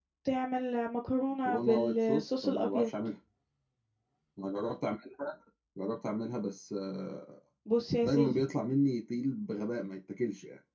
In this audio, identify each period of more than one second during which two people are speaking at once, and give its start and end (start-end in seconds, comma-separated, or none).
1.4-2.9